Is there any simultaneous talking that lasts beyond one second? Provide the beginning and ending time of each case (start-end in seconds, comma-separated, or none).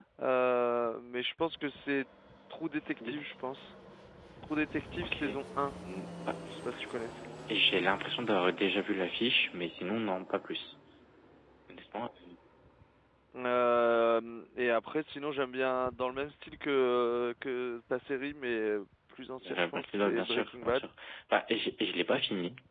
19.4-20.9